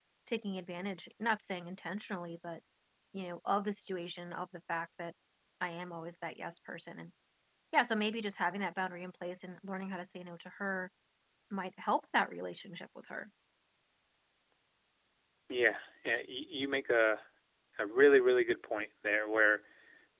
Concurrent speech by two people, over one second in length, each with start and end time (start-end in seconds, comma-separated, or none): none